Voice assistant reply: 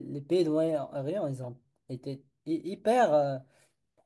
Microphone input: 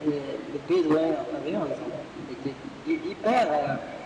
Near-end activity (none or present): none